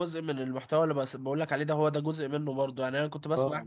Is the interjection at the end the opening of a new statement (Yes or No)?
No